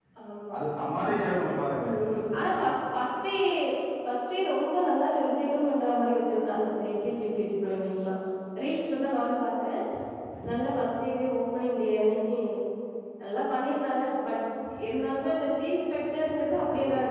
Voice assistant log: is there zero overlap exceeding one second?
Yes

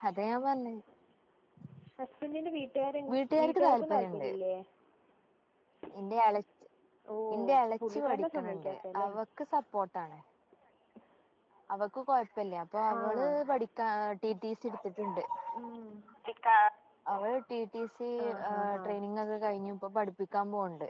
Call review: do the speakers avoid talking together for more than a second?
No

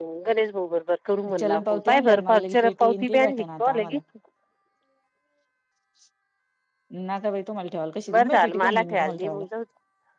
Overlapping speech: Yes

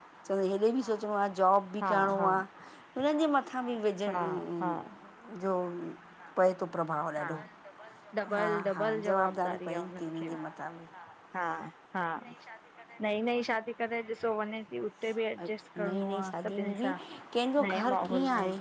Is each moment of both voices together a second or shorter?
No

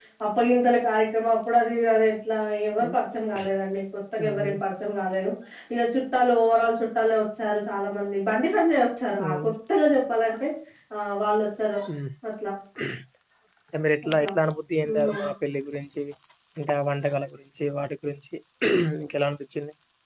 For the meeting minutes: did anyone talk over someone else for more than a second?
No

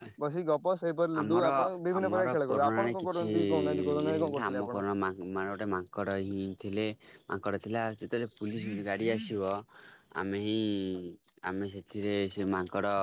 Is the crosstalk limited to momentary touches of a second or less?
No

